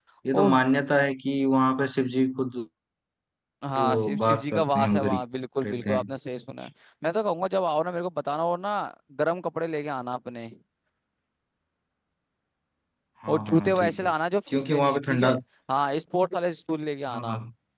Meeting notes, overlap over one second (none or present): present